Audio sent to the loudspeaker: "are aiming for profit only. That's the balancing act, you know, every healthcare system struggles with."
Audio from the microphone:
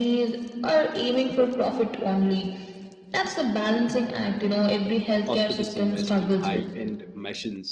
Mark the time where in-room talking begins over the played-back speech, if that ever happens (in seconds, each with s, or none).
5.3 s